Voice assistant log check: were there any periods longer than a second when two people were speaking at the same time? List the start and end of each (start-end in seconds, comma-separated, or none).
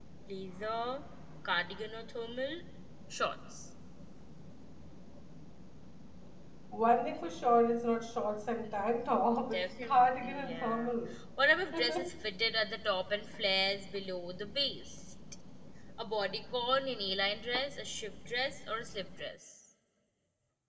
9.5-10.9